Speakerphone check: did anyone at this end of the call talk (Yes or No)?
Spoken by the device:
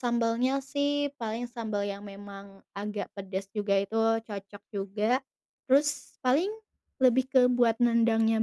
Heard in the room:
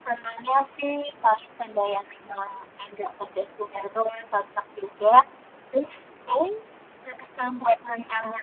No